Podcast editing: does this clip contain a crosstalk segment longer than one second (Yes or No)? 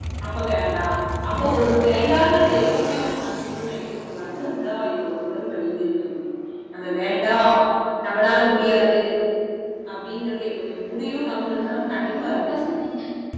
Yes